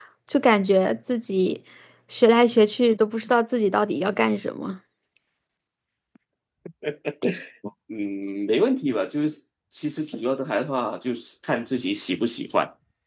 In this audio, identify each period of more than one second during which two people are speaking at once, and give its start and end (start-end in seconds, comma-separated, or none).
none